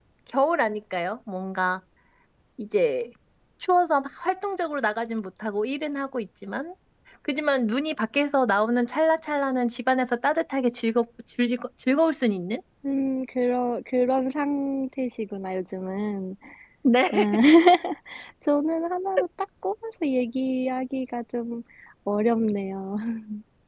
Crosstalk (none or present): none